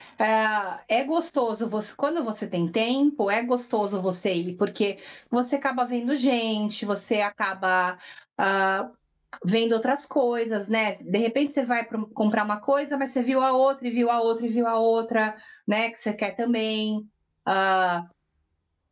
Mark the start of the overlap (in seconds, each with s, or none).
none